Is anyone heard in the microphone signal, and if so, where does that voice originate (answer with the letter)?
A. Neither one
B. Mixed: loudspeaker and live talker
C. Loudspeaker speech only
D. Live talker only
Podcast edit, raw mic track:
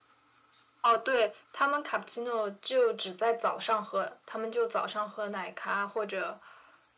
C